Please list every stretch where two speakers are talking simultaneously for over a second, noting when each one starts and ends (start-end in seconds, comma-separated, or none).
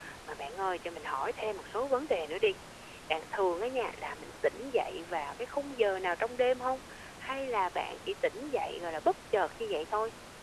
none